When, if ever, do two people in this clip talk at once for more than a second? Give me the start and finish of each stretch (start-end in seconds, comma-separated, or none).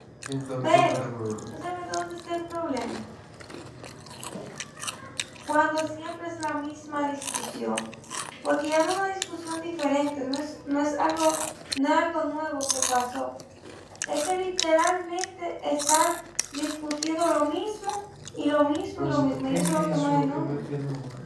19.0-20.6